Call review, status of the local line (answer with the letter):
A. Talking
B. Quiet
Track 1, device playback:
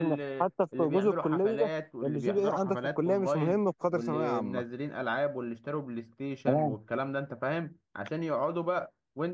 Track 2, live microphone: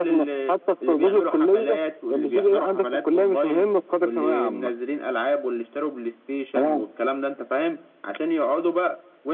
B